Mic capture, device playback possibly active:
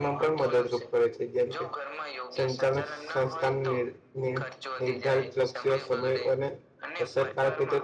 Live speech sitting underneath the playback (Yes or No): No